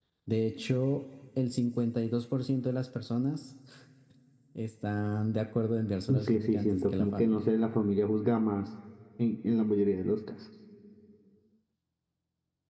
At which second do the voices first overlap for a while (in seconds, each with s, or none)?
6.1 s